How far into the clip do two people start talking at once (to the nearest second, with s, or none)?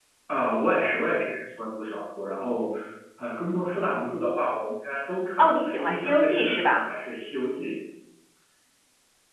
5 s